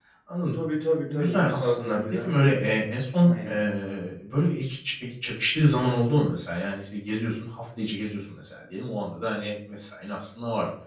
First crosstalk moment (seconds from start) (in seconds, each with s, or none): 1.1 s